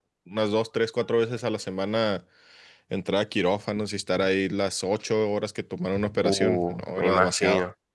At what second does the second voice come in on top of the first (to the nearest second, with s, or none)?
6 s